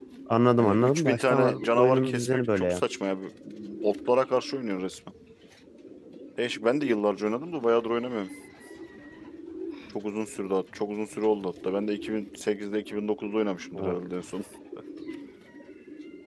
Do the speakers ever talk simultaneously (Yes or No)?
Yes